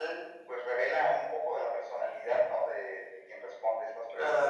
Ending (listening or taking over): taking over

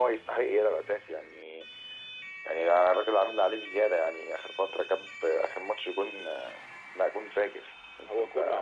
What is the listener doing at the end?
taking over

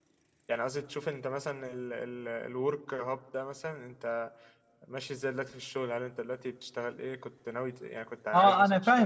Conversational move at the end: taking over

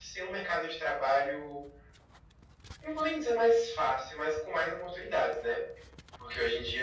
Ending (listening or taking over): listening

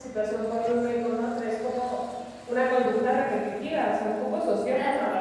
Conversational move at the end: taking over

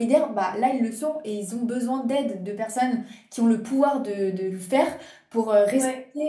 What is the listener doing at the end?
listening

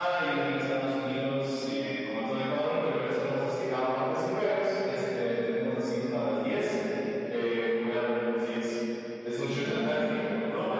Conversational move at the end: taking over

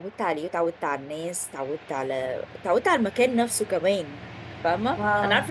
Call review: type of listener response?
listening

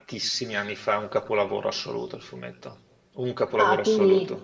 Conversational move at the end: taking over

